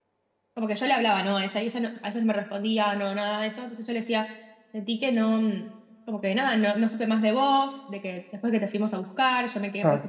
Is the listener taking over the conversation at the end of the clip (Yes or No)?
Yes